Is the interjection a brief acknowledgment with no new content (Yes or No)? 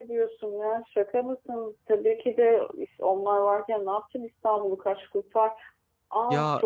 No